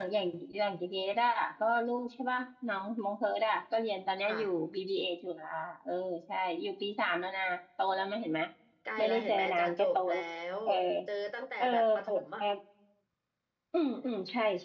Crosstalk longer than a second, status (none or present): present